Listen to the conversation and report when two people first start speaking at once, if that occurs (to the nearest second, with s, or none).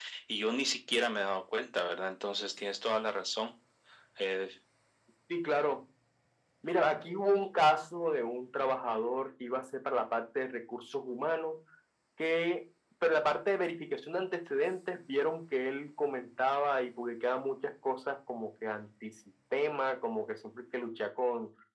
none